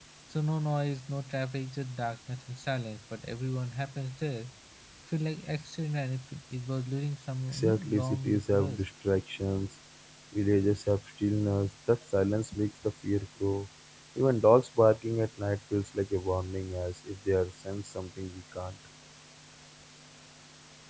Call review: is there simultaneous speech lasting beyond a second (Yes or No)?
Yes